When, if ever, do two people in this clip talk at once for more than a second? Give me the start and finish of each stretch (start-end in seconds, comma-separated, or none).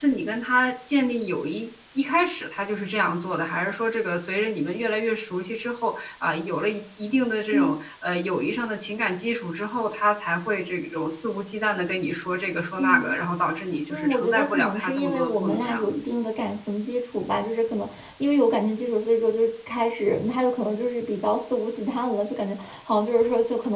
13.9-15.9